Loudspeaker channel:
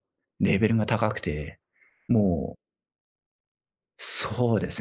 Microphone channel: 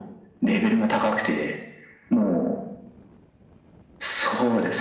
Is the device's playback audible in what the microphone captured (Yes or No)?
Yes